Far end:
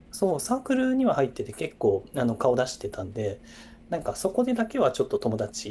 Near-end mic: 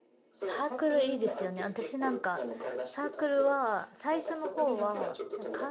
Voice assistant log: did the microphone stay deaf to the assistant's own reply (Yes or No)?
No